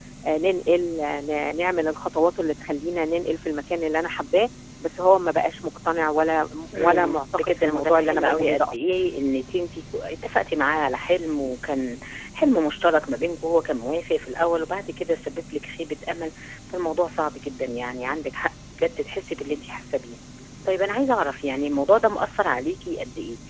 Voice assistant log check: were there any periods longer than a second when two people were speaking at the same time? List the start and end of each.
6.8-8.8

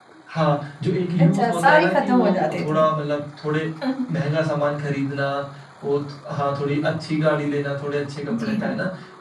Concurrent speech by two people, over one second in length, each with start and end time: 1.2-2.8

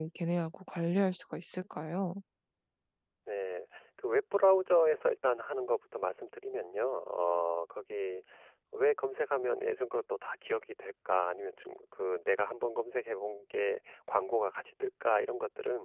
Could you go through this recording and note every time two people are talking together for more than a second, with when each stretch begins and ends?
none

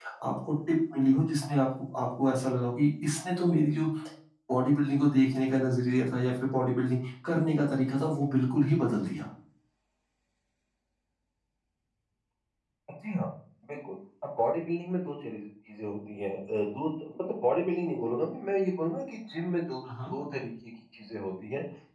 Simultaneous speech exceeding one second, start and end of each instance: none

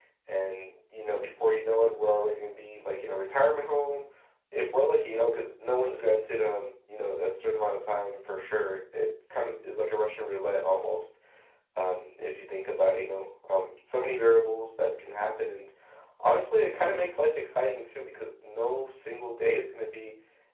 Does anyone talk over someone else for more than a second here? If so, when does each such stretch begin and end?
none

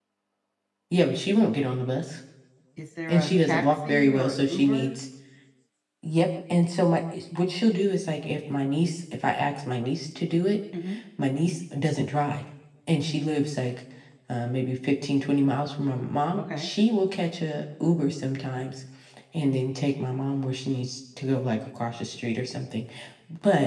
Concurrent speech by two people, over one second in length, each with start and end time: 3.1-4.9

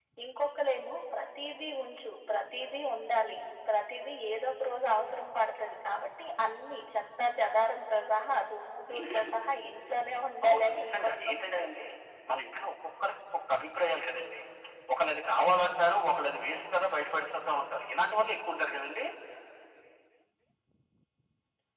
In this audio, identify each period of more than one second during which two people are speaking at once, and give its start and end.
10.5-11.7

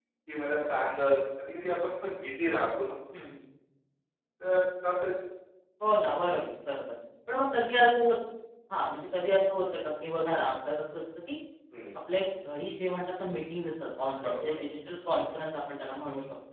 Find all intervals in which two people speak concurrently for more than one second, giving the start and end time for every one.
none

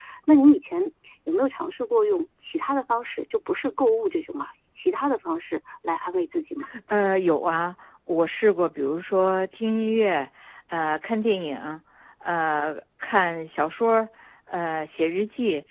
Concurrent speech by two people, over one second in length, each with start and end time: none

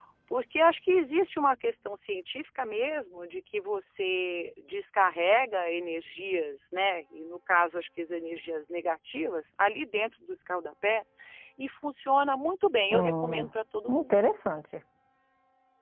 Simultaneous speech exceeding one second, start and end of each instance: none

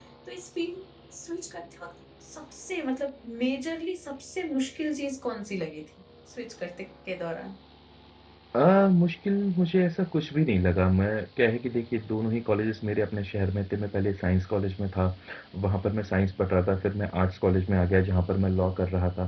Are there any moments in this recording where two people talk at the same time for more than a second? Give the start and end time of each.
none

